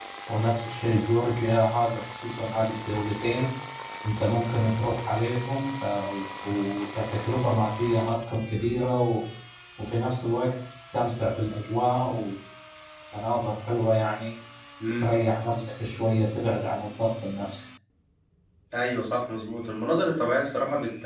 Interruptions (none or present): none